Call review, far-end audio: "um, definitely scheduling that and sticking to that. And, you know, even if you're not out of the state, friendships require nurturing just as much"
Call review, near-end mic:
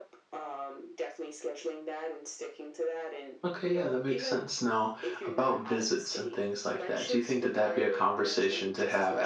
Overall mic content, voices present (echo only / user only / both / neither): both